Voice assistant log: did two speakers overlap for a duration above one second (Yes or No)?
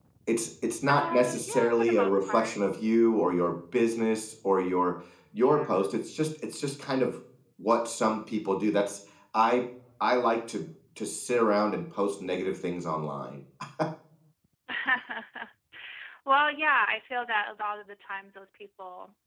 Yes